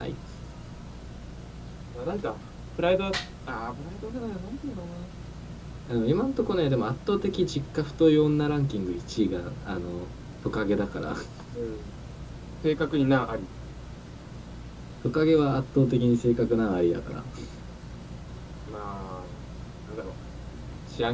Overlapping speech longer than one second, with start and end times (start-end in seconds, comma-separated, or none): none